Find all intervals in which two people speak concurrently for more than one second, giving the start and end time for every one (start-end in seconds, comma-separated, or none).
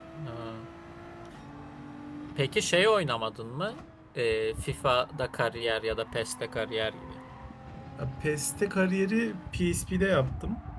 none